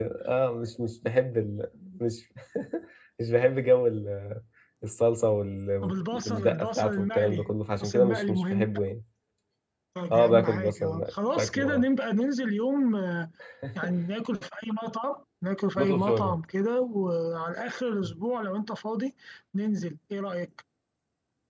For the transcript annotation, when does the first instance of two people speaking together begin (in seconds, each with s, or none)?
5.8 s